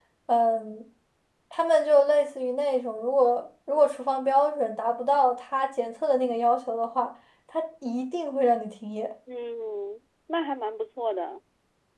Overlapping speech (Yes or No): No